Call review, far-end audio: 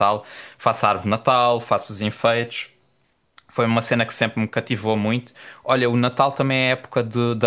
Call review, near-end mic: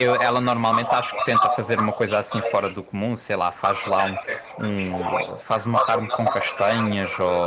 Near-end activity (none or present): present